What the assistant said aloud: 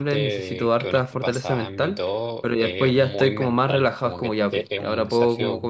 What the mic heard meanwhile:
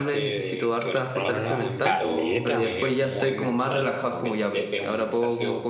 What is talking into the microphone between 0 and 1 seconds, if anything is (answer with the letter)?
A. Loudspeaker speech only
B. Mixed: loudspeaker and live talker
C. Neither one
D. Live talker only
A